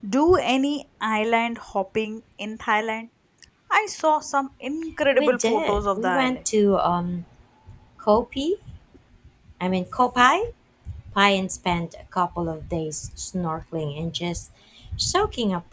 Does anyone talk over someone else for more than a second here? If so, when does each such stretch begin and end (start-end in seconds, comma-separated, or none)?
5.1-6.4